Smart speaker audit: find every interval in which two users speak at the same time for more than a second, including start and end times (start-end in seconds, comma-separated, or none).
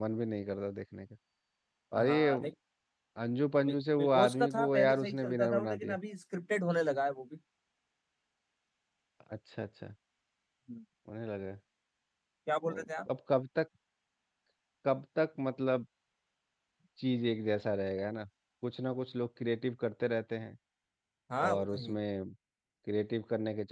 3.7-5.9